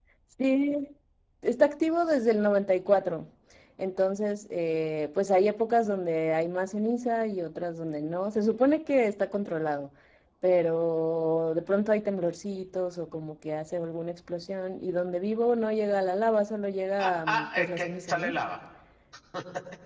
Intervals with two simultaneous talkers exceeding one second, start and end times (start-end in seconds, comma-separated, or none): 17.0-18.3